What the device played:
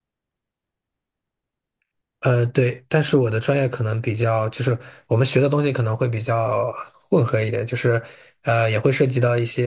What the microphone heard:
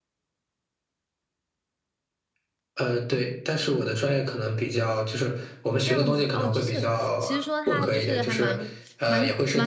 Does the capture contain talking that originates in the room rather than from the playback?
Yes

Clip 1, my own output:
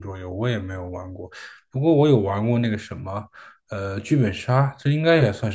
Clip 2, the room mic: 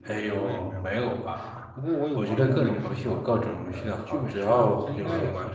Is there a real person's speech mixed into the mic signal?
Yes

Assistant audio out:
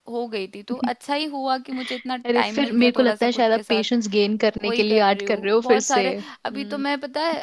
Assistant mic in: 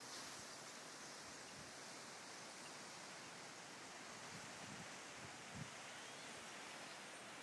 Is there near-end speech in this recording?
No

